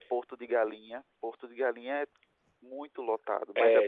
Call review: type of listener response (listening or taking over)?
taking over